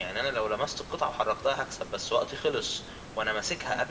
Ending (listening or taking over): listening